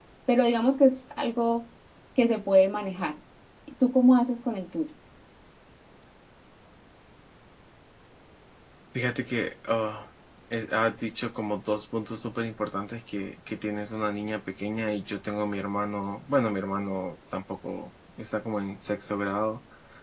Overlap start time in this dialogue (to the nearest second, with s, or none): none